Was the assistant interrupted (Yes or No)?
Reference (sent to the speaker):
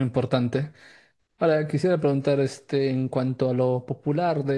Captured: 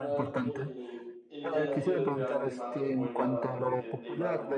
Yes